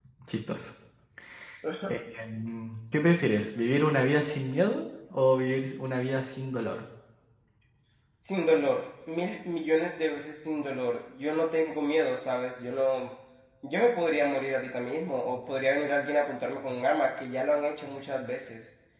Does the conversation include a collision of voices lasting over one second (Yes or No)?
No